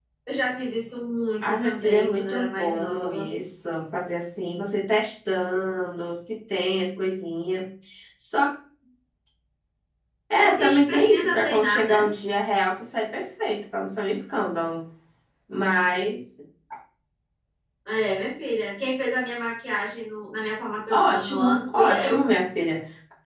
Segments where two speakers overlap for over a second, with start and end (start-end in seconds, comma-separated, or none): 1.4-3.2, 10.4-12.0, 20.9-22.2